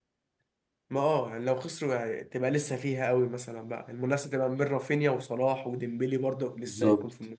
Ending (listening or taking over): taking over